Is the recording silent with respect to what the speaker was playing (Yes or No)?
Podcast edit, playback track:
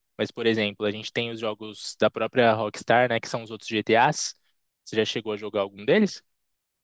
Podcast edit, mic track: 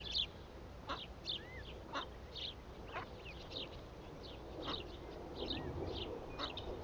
Yes